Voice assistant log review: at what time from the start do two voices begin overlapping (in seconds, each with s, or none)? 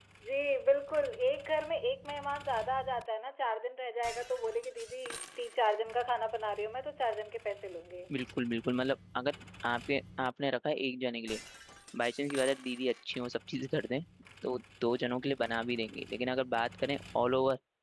none